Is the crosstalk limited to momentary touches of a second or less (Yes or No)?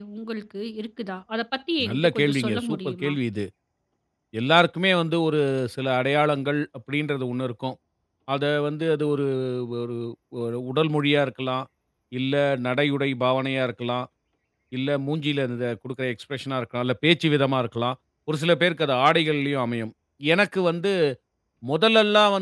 No